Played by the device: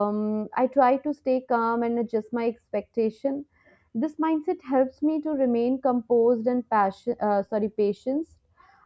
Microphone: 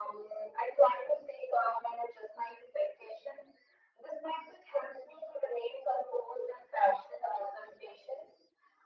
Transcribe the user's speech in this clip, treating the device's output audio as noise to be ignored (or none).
none